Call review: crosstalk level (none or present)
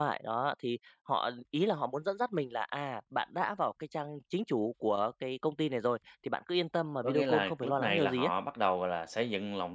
present